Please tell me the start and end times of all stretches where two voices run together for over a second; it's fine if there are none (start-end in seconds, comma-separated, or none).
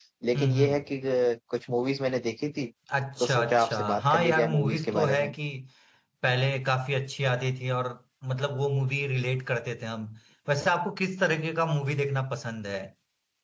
3.2-5.3